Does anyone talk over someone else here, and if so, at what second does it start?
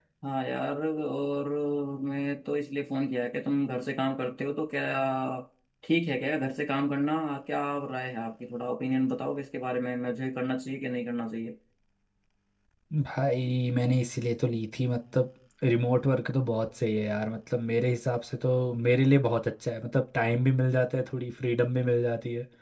none

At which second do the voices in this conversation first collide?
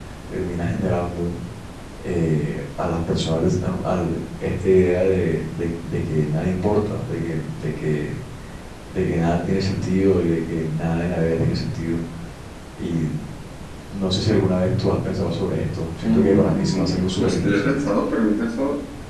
16 s

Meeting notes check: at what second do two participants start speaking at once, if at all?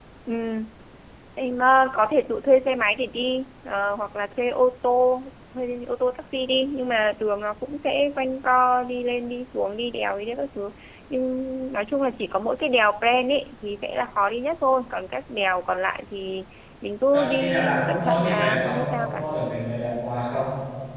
17 s

